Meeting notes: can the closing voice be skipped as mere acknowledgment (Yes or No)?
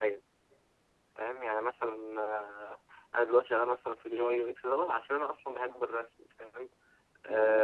Yes